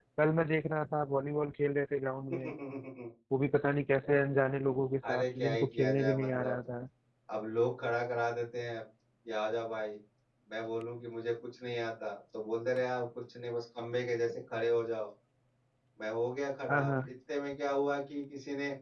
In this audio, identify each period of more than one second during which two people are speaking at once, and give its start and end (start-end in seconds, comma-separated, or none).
5.1-6.6